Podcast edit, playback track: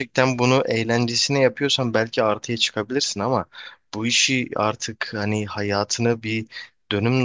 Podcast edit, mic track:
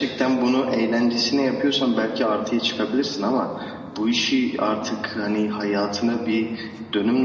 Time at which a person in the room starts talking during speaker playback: none

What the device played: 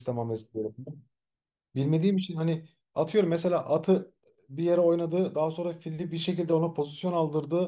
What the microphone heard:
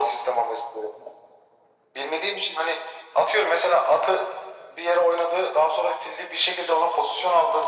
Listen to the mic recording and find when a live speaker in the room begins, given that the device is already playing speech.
none

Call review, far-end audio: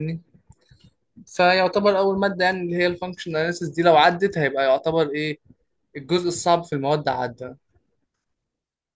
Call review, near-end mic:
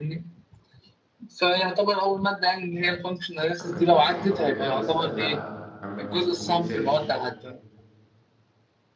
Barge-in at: 3.6 s

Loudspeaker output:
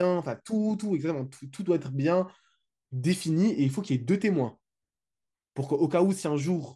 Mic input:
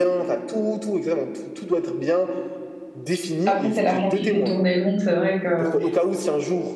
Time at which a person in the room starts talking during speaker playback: 3.4 s

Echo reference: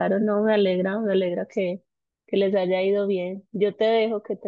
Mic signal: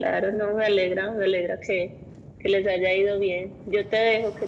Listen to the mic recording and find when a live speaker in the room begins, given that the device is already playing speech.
none

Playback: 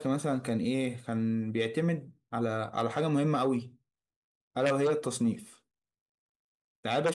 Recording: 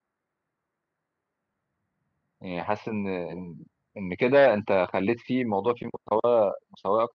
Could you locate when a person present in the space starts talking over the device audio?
2.4 s

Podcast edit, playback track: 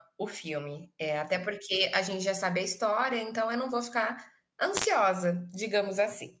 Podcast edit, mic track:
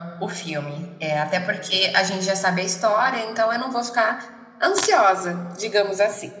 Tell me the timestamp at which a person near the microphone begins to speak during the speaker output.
none

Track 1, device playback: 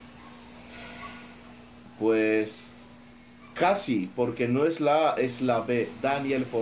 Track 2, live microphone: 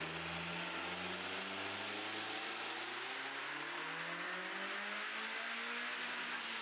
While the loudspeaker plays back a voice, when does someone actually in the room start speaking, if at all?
none

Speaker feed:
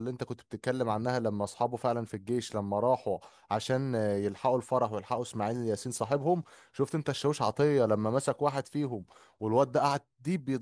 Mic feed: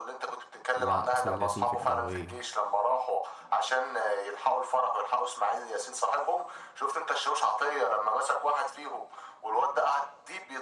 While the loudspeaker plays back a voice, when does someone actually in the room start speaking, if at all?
0.8 s

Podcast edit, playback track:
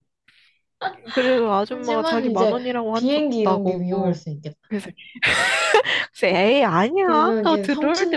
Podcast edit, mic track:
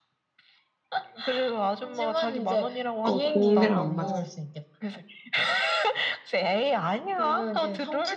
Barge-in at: 3.0 s

